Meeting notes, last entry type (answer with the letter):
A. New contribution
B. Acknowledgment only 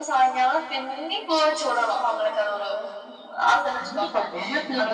A